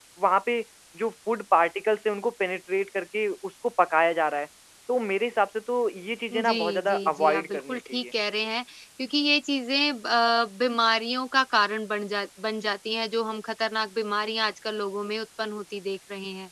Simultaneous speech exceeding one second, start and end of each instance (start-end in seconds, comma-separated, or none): 6.3-8.0